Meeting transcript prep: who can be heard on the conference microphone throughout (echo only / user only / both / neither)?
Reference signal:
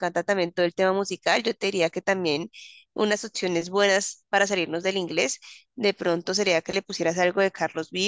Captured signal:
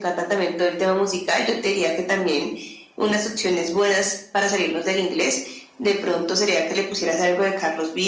echo only